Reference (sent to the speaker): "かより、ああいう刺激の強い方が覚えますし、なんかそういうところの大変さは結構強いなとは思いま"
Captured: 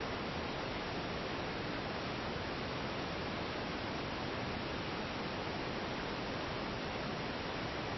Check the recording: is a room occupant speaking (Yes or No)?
No